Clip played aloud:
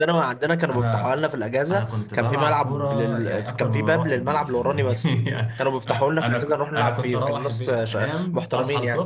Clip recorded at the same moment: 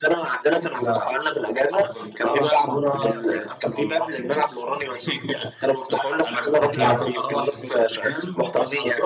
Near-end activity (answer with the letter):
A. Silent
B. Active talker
B